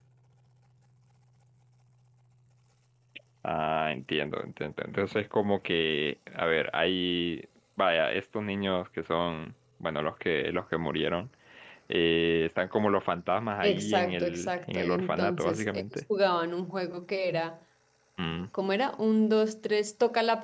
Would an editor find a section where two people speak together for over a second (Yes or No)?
Yes